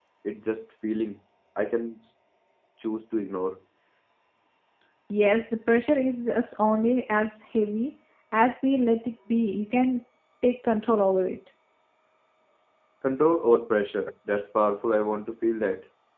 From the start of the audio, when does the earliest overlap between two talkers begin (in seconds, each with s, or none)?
none